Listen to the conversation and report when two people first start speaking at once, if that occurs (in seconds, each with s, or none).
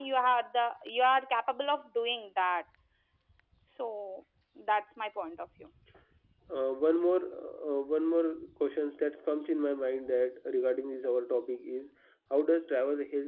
none